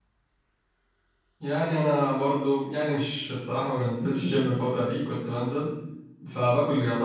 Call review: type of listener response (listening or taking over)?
listening